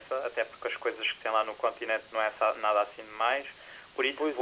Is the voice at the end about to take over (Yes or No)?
Yes